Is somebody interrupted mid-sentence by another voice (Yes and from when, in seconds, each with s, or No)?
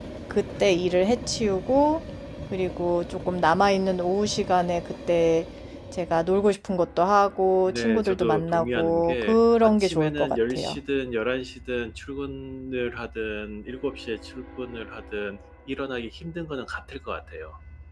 Yes, from 7.7 s